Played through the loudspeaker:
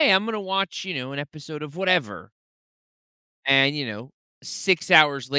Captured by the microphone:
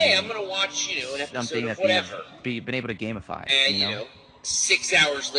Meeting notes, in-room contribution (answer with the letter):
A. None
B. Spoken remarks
B